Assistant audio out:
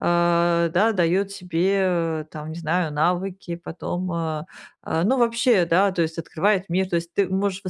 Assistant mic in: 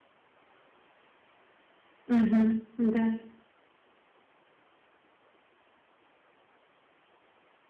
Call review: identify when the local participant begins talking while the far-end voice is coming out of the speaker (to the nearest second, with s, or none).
2 s